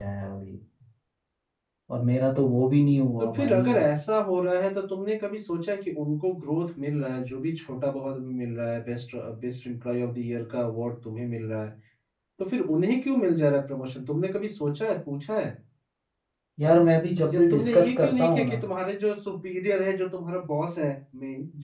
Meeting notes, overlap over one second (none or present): present